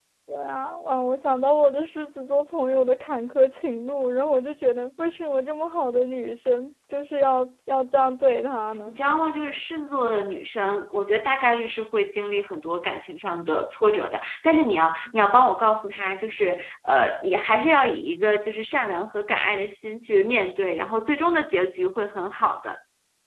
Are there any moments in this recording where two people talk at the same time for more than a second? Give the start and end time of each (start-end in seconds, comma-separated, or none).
none